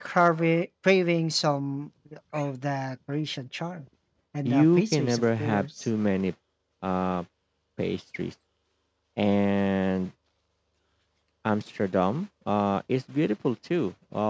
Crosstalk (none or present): present